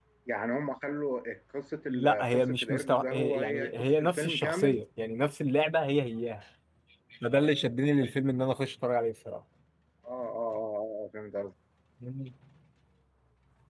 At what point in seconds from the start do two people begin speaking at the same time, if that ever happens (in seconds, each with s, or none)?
1.9 s